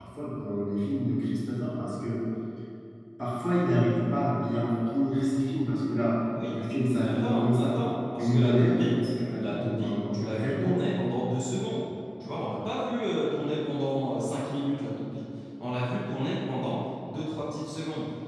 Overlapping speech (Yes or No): Yes